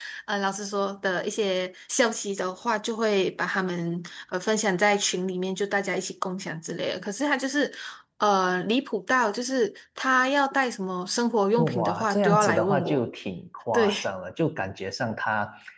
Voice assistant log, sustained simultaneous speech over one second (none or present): present